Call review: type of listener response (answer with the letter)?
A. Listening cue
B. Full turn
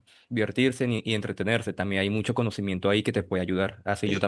A